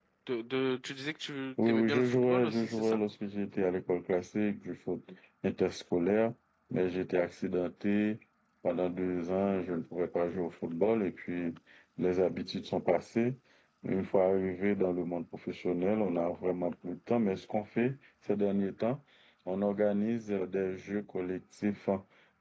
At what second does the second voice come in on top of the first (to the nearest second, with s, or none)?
2 s